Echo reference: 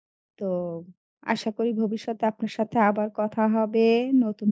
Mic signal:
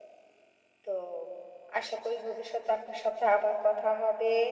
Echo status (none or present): present